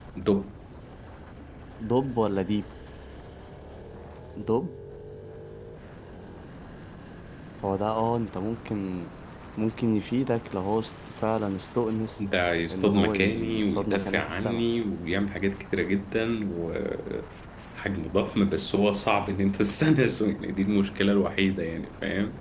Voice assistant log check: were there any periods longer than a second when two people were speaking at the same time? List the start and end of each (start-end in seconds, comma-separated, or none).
12.7-14.6